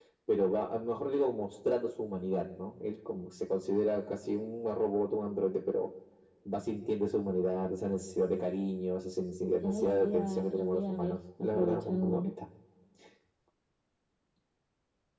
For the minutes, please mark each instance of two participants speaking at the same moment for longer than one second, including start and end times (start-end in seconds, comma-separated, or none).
9.6-12.3